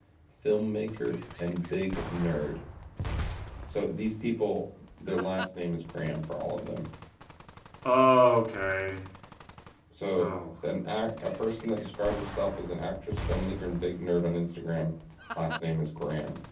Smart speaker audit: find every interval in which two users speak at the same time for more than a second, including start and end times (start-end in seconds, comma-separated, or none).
none